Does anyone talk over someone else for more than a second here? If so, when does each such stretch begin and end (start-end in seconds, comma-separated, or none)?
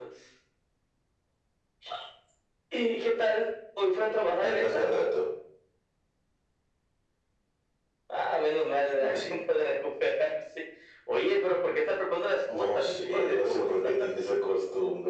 12.6-13.9